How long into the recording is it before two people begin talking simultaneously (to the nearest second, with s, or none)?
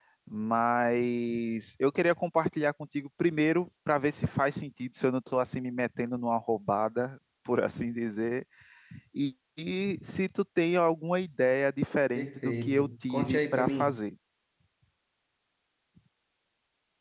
12 s